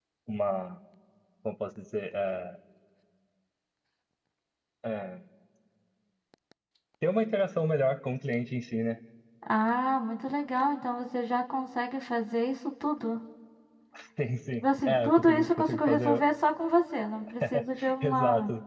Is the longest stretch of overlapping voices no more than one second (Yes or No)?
No